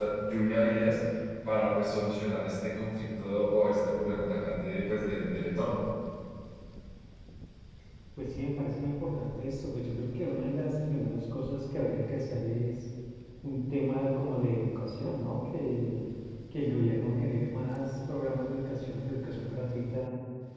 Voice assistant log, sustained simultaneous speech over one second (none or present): none